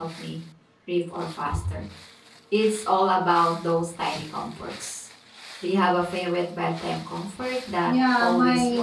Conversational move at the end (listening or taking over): taking over